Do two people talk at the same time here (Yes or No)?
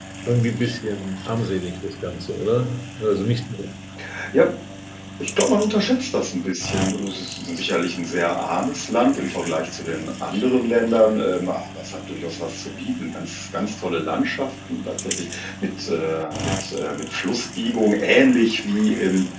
No